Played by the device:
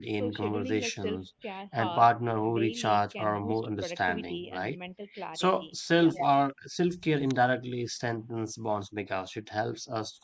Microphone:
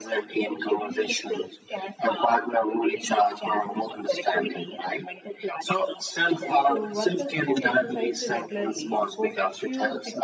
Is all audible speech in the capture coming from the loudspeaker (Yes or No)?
No